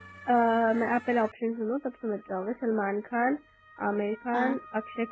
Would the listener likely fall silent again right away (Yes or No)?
Yes